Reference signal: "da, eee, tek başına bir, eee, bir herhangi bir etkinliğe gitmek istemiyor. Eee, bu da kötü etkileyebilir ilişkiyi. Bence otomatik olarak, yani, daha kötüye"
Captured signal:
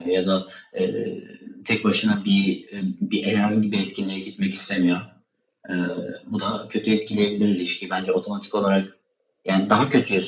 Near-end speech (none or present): none